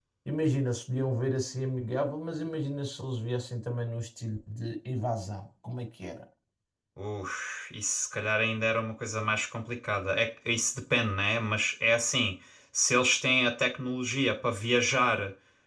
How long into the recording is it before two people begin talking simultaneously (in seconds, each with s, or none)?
none